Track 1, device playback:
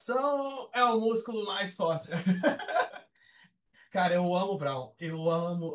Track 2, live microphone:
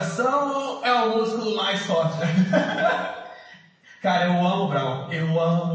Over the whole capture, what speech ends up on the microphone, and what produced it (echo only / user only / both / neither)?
echo only